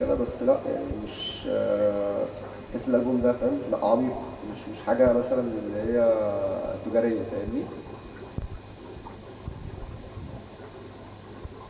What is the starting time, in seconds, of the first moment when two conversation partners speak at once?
none

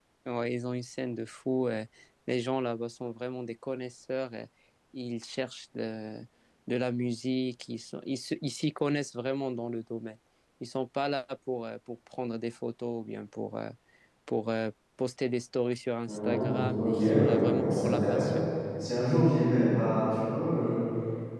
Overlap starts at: 16.1 s

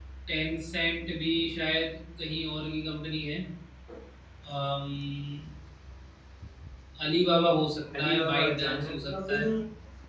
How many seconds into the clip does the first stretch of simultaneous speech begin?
7.8 s

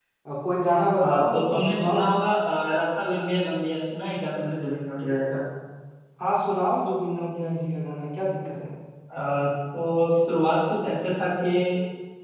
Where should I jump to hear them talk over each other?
1.0 s

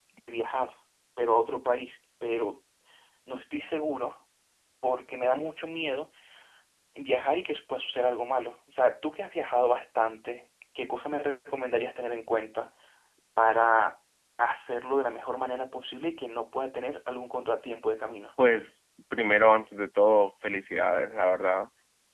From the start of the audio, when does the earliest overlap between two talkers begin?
none

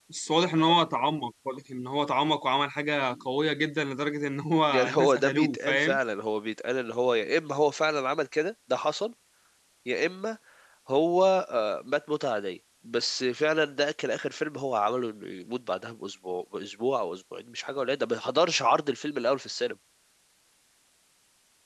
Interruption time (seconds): 4.7 s

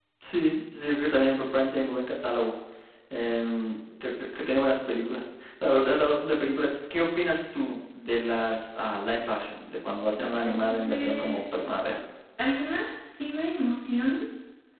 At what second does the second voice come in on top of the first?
10.2 s

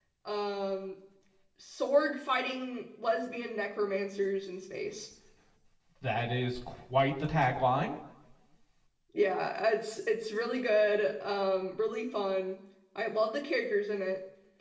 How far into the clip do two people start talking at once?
none

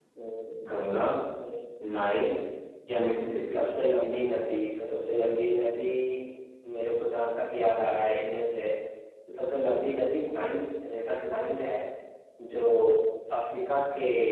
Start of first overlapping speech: none

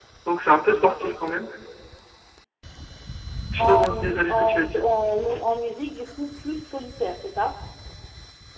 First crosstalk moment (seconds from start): 3.6 s

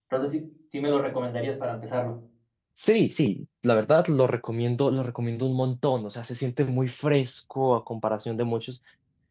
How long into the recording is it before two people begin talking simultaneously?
none

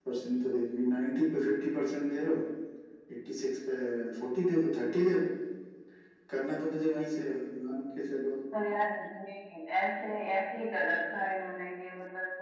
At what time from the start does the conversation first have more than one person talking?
none

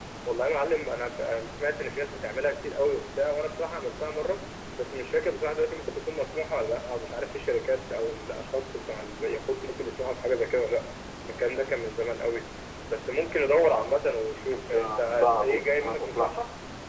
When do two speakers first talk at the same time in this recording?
14.5 s

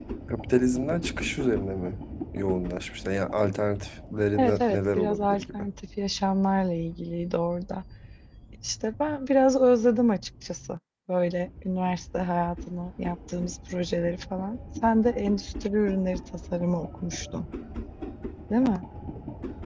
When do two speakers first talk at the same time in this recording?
4.3 s

